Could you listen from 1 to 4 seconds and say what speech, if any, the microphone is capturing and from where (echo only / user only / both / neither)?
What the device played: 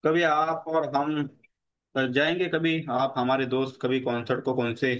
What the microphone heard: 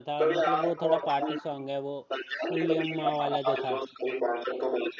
both